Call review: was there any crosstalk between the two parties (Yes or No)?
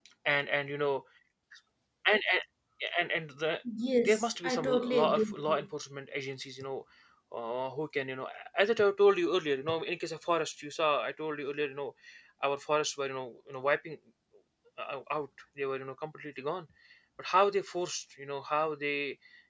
Yes